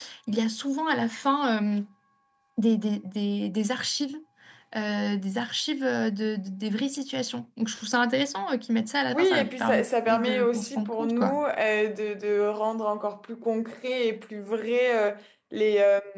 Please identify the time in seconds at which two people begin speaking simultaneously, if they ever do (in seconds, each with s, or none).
9.1 s